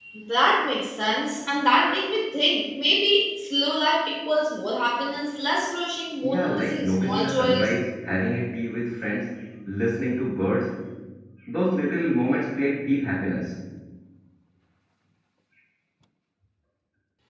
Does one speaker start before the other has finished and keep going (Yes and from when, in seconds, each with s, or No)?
Yes, from 6.2 s